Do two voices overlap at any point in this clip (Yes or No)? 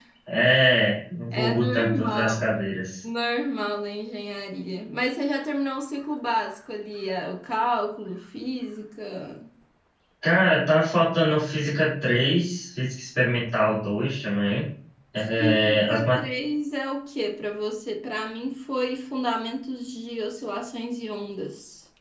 Yes